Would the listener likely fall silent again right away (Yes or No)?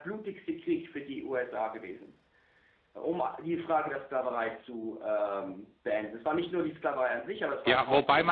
No